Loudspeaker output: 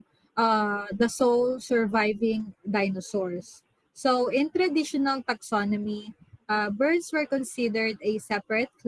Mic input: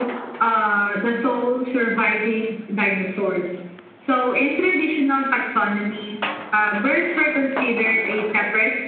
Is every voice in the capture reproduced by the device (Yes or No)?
Yes